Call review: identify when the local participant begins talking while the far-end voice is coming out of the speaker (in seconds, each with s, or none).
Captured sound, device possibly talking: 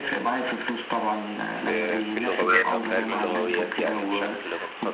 1.5 s